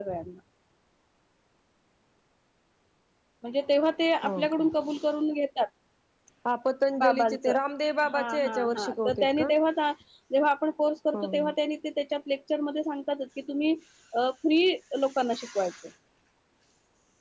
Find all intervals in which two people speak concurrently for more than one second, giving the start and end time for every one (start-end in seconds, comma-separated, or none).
8.1-9.5